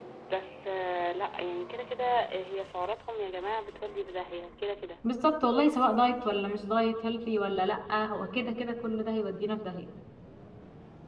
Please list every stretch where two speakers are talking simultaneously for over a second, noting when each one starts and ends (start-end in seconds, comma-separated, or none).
none